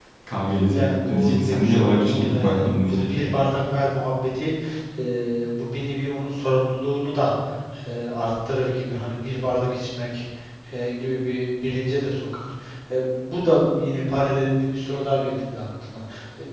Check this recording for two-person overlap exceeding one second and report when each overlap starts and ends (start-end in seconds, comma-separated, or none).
0.7-3.0